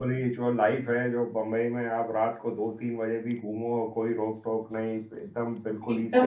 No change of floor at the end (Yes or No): No